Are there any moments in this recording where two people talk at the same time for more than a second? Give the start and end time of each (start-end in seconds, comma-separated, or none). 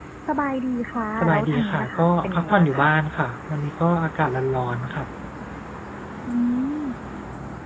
1.2-2.9